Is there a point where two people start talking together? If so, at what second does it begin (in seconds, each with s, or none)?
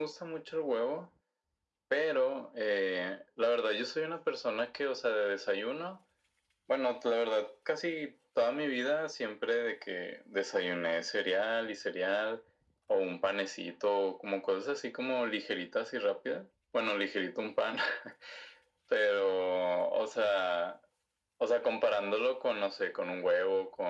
none